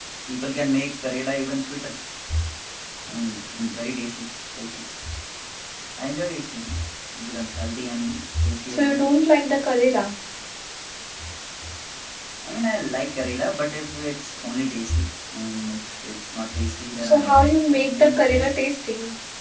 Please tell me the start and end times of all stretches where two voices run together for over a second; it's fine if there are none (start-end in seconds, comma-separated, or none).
17.0-18.6